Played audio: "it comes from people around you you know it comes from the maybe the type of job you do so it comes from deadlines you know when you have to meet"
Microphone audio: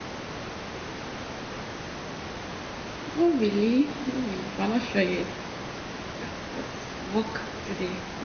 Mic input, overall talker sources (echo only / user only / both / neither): user only